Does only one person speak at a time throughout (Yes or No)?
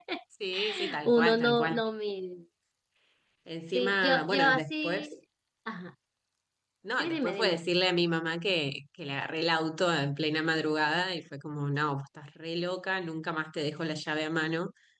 No